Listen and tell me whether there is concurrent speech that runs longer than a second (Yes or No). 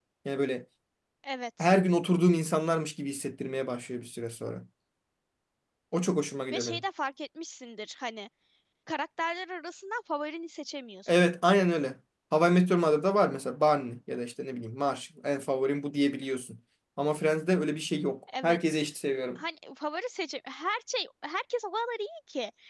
No